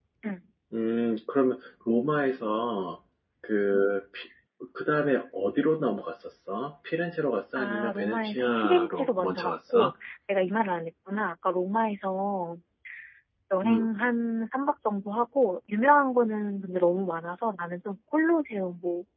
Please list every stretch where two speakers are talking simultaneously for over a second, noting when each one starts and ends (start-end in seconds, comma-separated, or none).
7.5-9.9